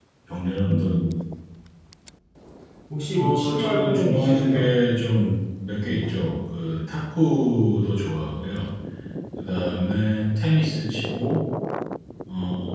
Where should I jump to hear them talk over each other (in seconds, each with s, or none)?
3.1 s